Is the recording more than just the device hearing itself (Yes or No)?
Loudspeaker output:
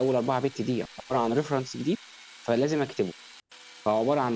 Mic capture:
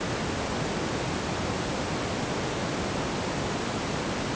No